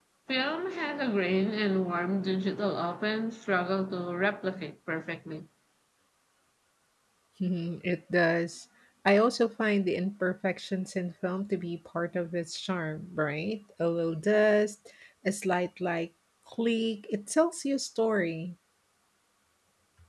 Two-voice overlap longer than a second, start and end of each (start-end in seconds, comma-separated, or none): none